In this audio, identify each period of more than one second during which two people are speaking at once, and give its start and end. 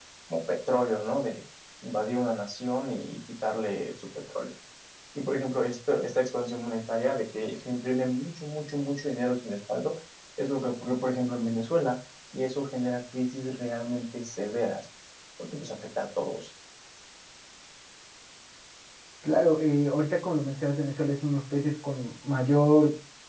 none

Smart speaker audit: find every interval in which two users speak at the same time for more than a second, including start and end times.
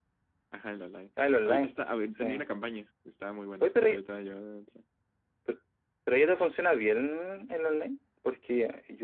none

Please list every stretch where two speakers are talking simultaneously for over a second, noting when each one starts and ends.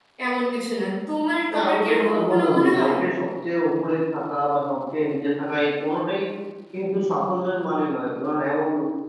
1.5-2.9

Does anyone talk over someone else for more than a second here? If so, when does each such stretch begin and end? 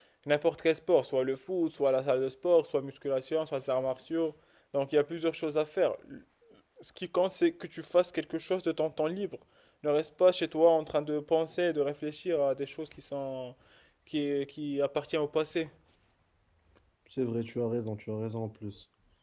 none

